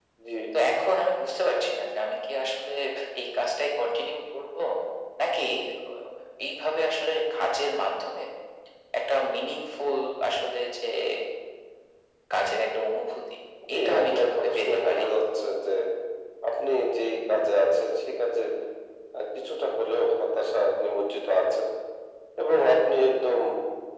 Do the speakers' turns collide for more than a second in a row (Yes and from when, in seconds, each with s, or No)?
Yes, from 13.8 s